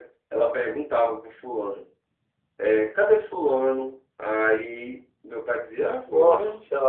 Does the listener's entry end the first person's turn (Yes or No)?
No